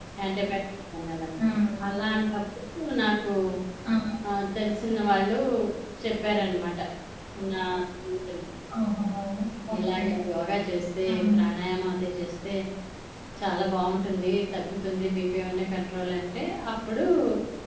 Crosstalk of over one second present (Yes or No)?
No